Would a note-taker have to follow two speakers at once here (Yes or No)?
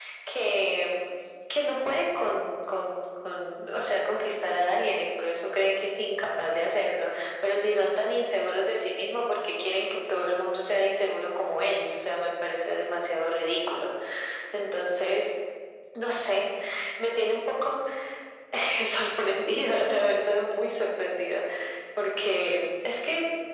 No